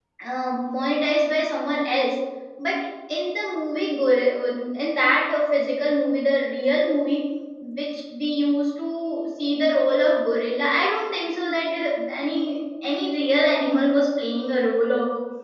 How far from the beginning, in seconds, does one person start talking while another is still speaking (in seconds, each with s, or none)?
none